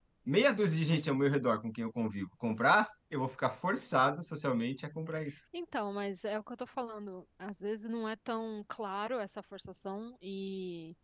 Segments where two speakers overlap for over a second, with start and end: none

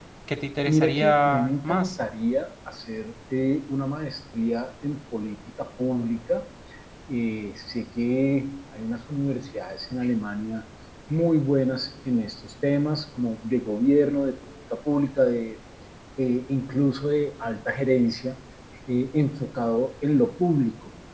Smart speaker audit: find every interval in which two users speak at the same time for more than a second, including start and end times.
0.7-2.0

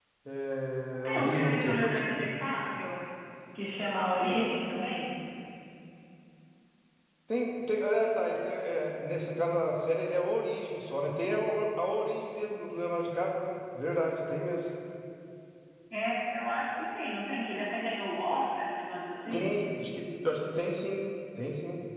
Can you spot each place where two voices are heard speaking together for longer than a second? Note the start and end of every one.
0.9-2.3

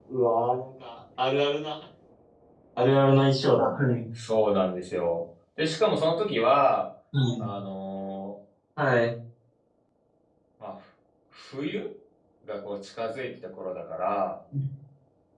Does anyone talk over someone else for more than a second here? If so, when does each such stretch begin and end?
none

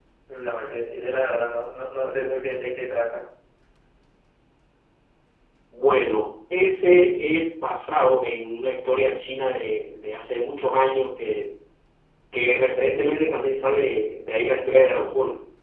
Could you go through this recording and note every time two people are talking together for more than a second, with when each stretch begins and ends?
none

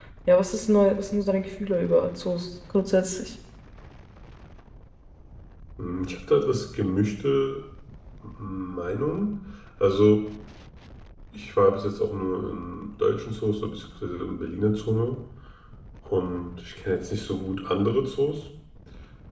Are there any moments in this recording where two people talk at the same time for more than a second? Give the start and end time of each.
none

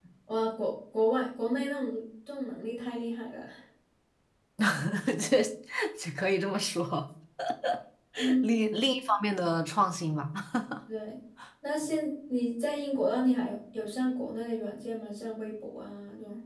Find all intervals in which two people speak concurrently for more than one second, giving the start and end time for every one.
none

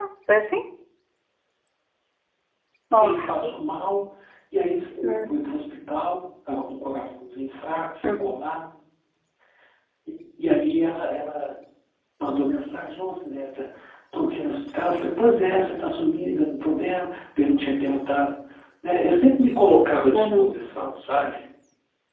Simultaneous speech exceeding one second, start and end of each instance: none

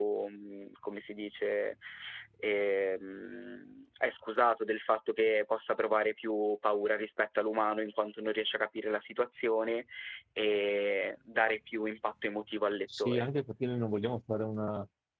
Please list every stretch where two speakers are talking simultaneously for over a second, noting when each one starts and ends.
none

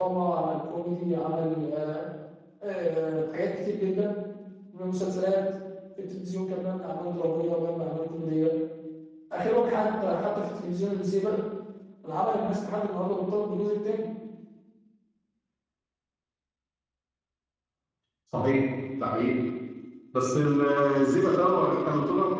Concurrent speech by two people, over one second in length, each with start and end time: none

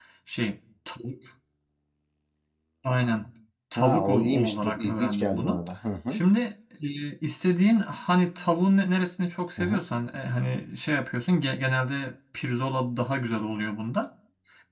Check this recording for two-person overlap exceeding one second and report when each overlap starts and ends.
3.8-5.6

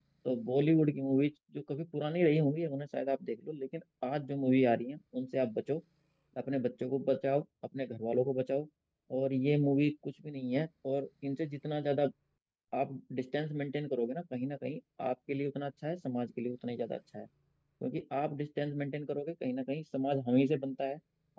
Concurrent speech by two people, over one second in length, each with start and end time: none

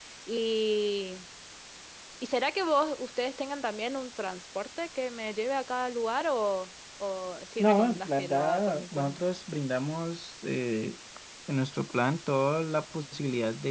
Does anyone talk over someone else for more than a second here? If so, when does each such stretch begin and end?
7.6-9.2

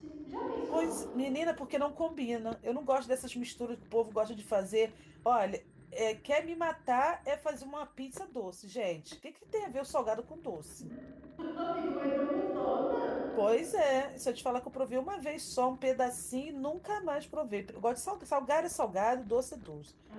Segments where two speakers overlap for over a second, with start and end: none

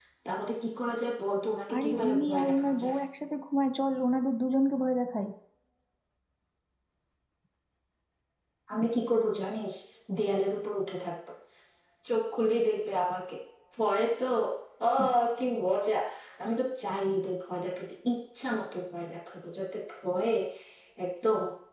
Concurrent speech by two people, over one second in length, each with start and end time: 1.8-3.0

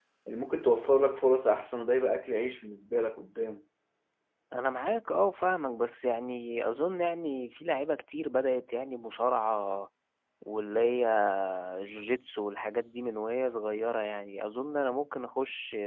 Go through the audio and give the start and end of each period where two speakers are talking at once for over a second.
none

